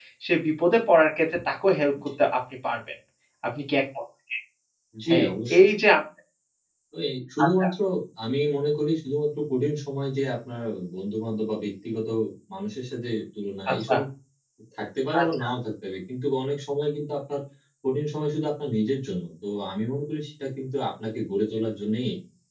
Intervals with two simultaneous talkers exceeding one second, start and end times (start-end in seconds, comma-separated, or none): none